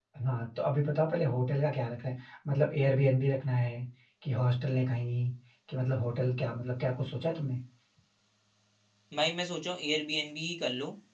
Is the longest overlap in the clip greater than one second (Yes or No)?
No